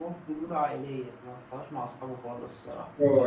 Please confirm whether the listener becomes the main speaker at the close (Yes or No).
Yes